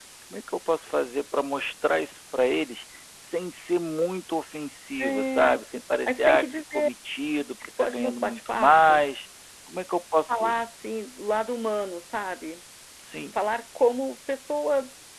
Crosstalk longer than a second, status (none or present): present